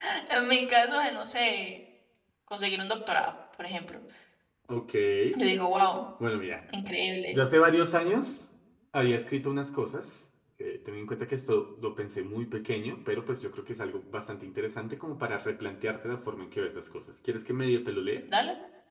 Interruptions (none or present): none